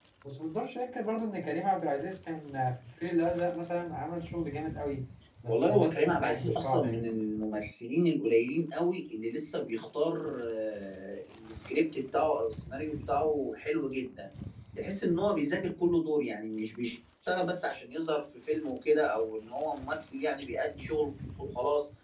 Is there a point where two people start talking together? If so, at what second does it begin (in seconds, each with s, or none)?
5.5 s